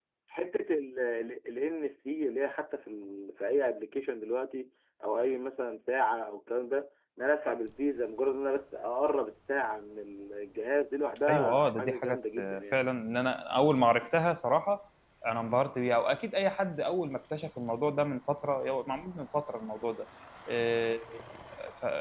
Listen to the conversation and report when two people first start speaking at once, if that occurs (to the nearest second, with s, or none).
11 s